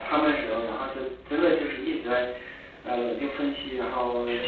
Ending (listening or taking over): listening